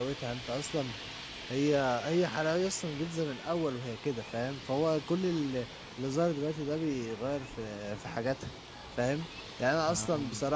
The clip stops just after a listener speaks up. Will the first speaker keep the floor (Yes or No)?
Yes